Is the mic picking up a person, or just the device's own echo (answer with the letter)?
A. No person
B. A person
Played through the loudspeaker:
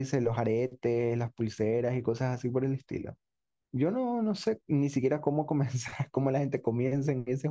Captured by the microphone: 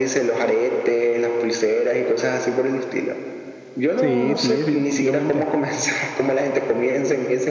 B